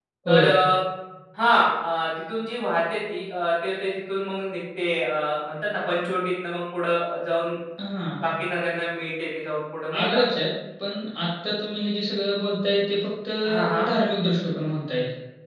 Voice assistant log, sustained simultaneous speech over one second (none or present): none